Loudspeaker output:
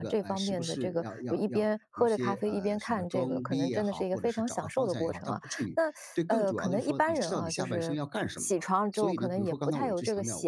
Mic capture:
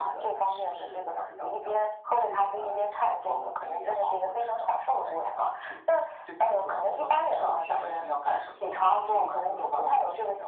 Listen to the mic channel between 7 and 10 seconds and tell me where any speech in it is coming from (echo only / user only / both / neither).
echo only